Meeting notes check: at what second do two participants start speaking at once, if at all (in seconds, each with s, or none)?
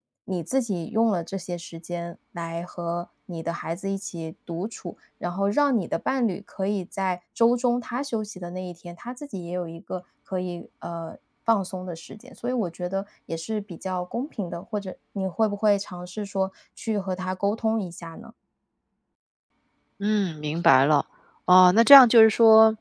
none